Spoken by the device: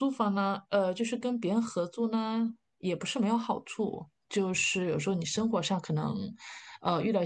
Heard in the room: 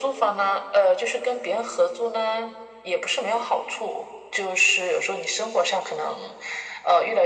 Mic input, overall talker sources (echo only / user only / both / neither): echo only